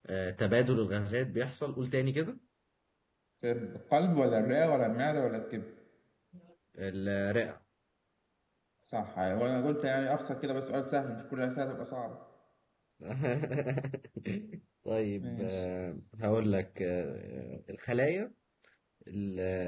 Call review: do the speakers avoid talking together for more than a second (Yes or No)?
Yes